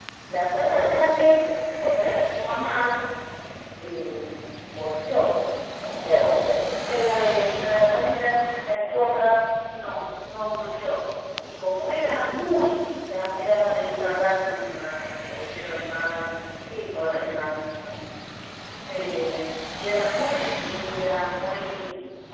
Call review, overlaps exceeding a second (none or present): none